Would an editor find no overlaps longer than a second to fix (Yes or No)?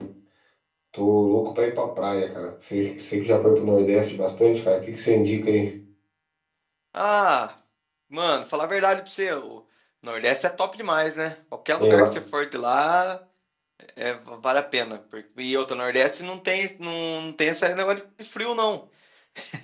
Yes